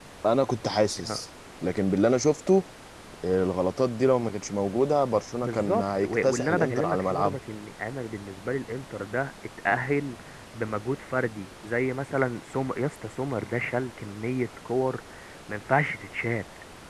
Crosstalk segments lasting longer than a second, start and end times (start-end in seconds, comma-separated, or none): 5.4-7.4